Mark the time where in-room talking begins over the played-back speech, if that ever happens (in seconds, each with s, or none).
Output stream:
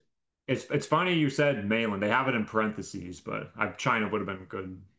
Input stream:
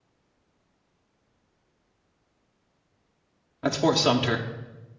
3.6 s